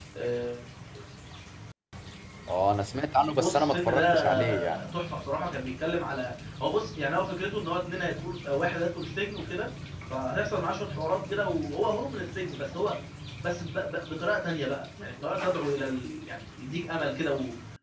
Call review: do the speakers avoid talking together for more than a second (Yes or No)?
No